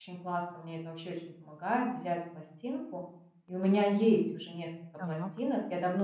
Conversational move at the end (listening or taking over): listening